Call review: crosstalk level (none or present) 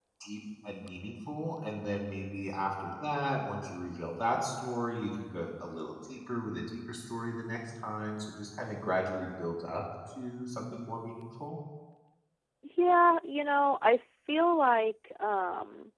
none